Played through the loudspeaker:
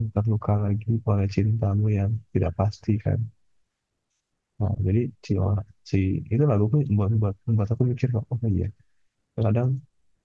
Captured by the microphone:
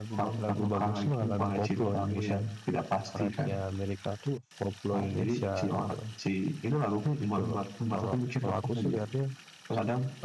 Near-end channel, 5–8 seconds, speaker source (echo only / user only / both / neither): both